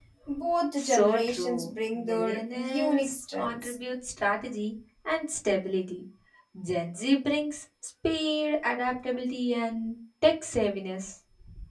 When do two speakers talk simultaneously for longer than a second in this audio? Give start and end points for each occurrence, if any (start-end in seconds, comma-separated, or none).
0.8-3.8